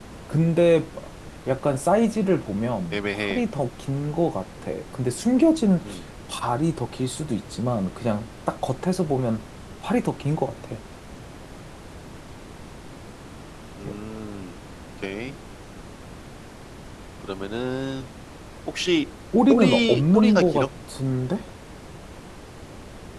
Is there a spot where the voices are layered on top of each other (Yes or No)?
Yes